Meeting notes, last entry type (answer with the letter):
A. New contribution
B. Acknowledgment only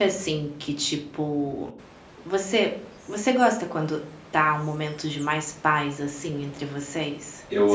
A